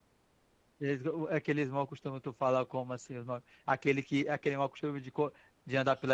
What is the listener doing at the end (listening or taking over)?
taking over